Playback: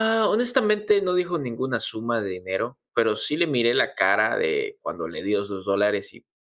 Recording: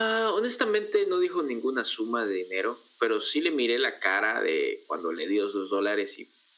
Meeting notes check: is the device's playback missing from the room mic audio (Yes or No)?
No